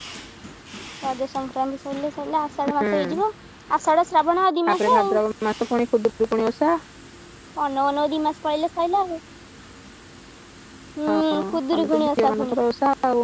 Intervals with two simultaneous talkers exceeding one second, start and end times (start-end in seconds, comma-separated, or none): 11.1-12.6